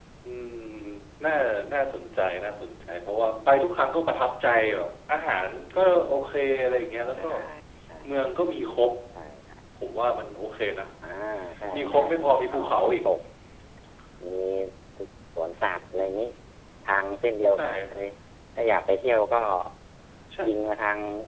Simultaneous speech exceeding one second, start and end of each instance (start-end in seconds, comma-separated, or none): 11.8-13.0